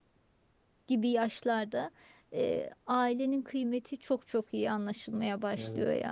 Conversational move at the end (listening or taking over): taking over